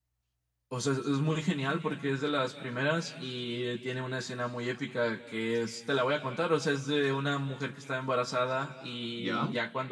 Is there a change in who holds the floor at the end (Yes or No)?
No